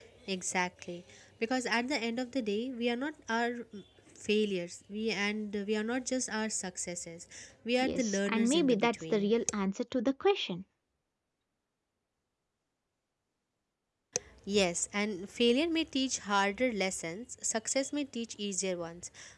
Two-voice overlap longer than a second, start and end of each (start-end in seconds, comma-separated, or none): 7.8-9.3